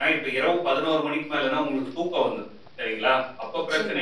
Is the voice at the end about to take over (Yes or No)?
No